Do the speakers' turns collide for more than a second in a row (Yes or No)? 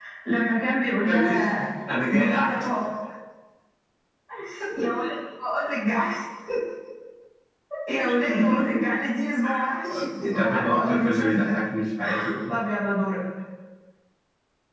Yes